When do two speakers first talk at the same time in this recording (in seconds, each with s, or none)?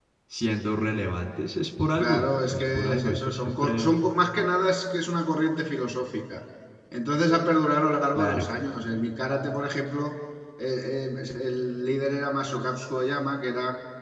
2.0 s